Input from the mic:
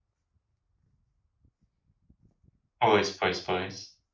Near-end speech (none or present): present